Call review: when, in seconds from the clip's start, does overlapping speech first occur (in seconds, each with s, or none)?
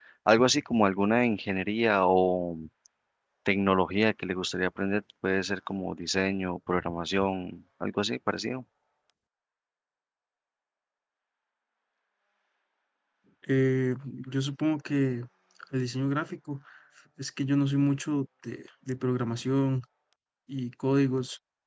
none